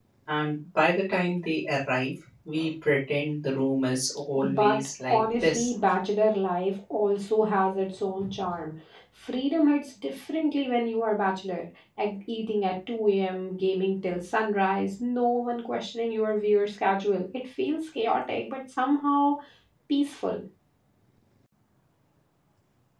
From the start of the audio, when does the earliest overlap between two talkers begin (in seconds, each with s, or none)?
4.4 s